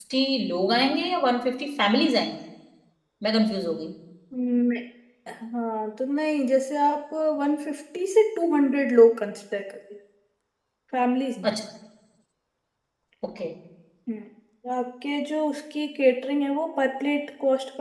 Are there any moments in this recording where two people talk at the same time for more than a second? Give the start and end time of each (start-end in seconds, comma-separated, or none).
none